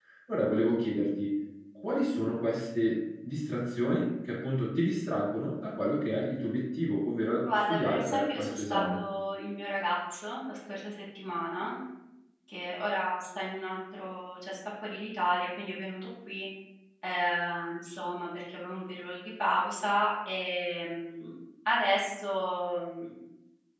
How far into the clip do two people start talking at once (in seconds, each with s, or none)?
7.4 s